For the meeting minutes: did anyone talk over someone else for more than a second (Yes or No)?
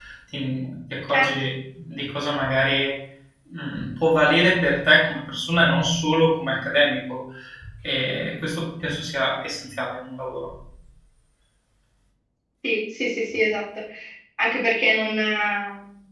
No